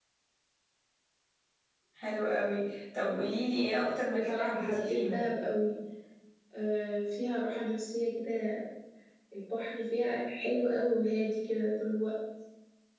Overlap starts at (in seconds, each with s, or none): 4.1 s